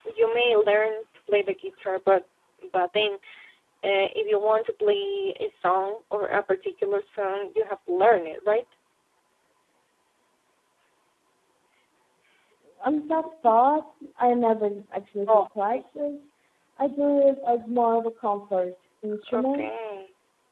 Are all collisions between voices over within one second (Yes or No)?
Yes